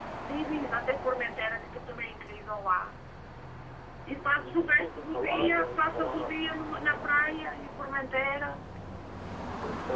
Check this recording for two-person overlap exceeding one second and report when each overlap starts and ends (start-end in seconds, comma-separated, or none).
4.1-6.3